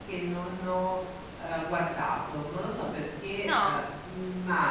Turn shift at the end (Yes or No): No